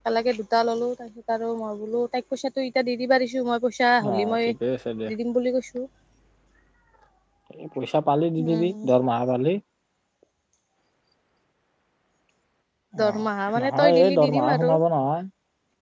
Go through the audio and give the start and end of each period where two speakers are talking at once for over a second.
13.1-14.7

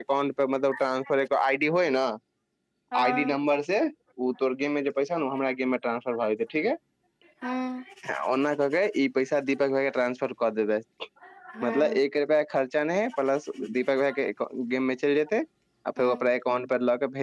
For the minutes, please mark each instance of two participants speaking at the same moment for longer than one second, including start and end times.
none

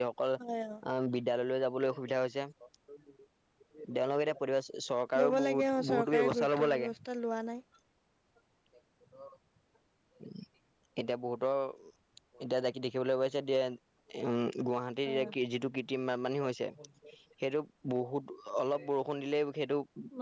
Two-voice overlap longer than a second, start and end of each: 5.2-6.9

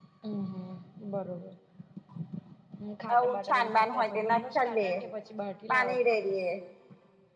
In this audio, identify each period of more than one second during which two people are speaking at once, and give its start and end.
3.1-5.0

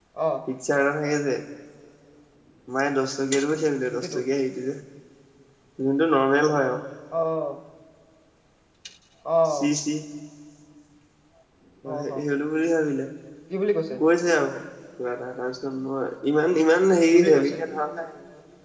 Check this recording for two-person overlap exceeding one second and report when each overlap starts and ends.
none

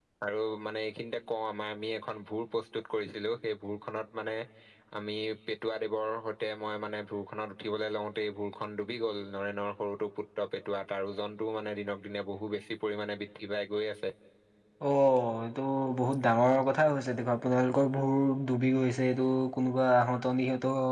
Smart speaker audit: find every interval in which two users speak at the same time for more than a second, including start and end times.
none

